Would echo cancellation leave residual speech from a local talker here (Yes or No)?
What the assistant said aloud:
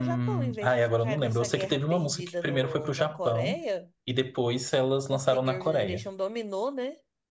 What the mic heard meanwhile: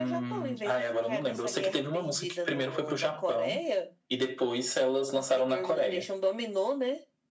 No